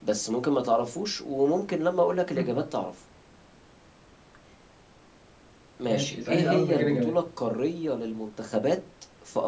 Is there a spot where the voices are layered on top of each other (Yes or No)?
Yes